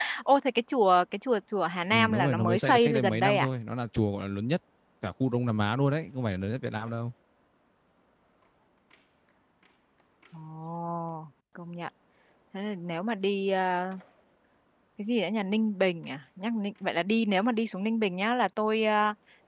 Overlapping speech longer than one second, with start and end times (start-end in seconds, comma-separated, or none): 1.9-3.5